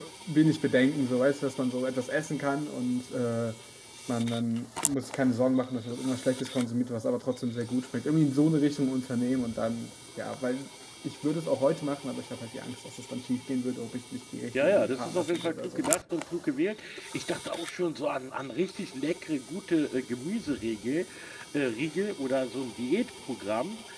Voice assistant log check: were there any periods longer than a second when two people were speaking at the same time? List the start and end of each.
14.6-15.9

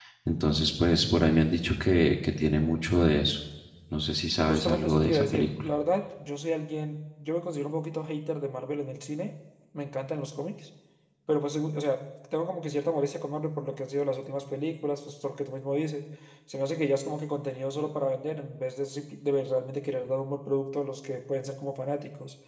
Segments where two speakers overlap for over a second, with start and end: 4.5-5.7

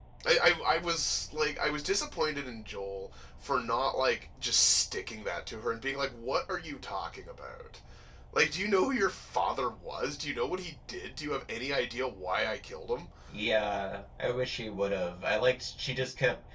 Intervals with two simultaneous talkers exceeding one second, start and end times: none

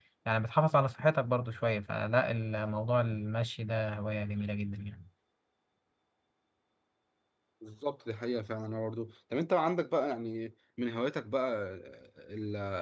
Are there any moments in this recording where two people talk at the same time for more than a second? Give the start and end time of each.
none

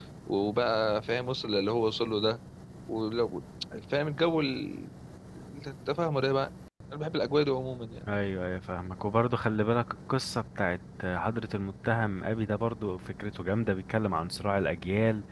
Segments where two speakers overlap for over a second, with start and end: none

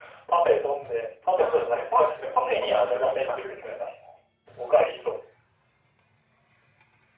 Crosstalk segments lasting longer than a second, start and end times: 1.4-3.8

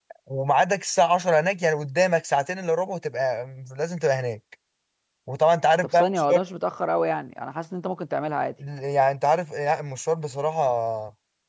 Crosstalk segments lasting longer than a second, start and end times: none

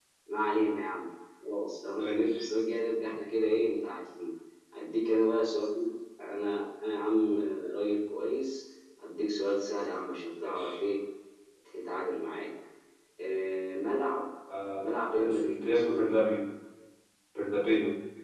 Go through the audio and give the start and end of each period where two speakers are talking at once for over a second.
14.8-16.1

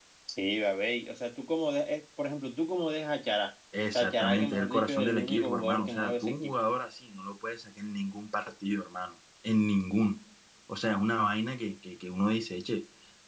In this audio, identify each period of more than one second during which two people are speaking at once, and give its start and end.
3.9-6.5

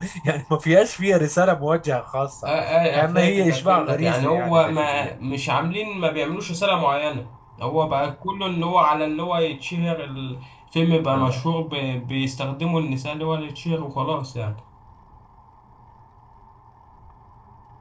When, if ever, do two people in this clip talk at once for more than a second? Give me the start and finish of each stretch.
3.0-5.1

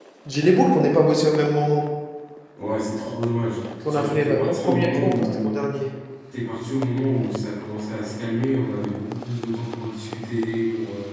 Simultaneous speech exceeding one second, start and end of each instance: 3.9-5.4

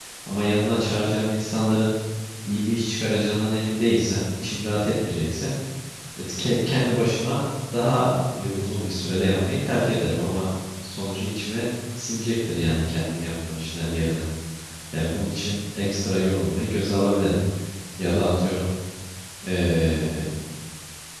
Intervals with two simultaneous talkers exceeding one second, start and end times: none

